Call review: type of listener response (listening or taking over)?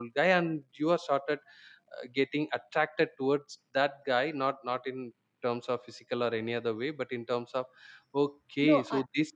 listening